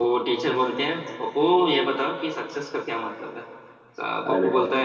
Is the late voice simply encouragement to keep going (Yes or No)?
Yes